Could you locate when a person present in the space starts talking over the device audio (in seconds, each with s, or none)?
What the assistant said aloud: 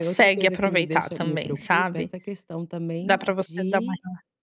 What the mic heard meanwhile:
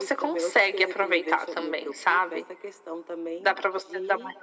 none